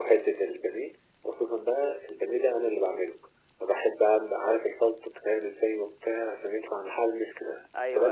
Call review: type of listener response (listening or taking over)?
listening